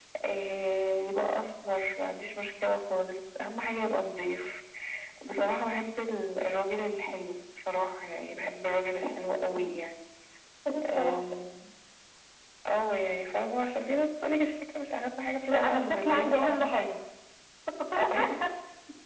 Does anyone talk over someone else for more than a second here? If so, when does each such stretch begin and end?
15.5-16.9

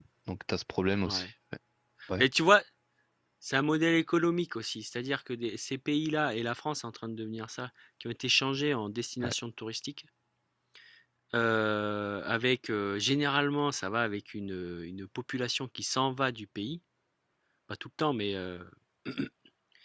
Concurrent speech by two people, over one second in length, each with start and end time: none

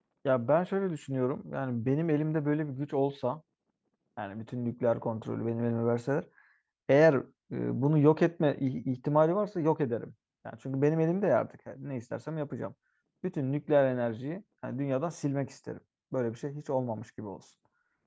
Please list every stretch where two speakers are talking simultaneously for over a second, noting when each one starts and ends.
none

